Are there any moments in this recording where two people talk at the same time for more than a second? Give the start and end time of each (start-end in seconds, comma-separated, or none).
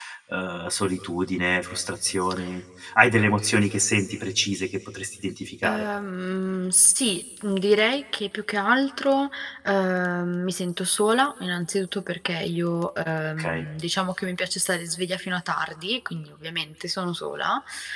none